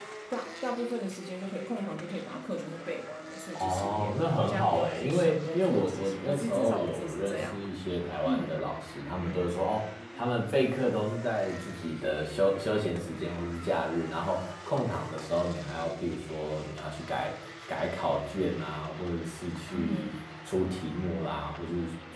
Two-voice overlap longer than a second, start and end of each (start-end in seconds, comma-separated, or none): 3.6-7.6